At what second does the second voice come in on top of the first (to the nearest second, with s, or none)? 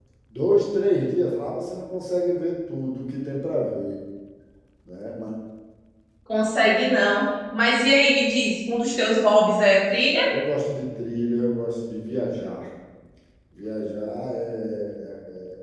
none